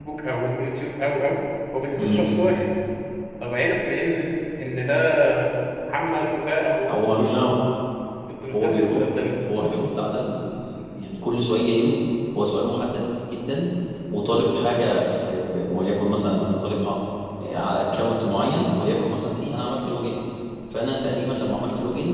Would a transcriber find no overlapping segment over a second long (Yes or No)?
Yes